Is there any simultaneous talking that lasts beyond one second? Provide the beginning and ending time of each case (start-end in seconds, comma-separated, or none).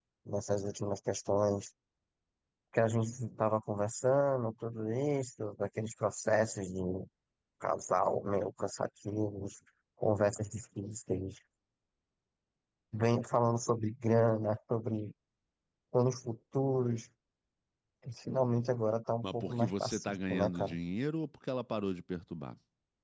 19.2-20.8